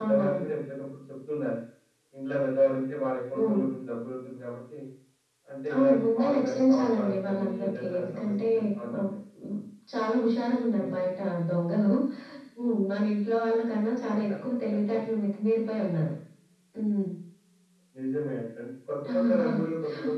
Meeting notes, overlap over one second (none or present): present